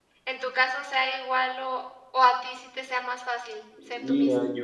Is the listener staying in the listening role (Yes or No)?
No